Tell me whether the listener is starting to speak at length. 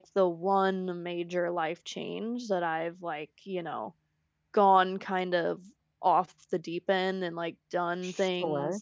No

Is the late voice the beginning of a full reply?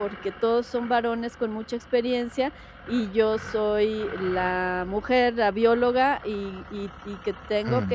No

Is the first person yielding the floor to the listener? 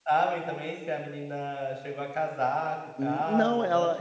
Yes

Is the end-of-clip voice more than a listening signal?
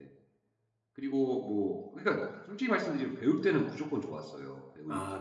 Yes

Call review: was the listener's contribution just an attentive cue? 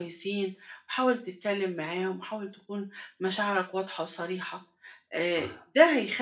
Yes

